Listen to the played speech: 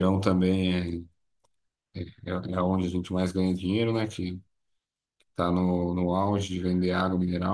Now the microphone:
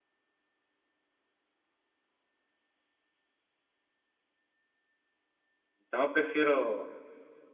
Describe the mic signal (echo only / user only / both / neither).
user only